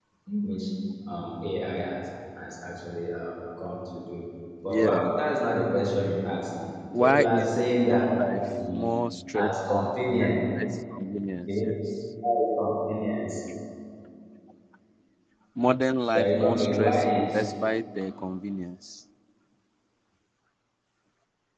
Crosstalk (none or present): present